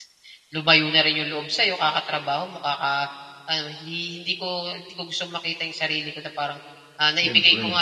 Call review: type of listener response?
listening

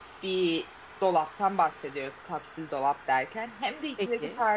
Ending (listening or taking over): listening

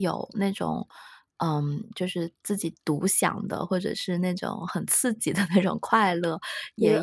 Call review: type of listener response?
listening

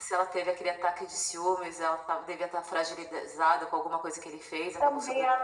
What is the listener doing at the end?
taking over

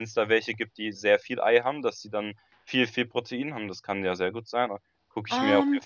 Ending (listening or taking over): taking over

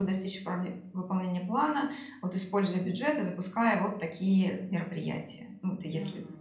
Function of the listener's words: taking over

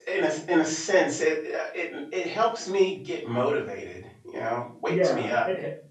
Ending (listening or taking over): taking over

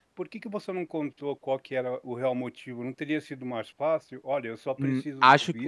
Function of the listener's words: taking over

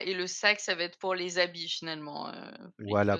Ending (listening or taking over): taking over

